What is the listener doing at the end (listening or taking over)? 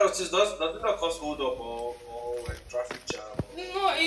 taking over